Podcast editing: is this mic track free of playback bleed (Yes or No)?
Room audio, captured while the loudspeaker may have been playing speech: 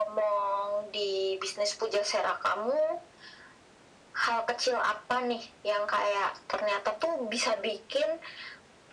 No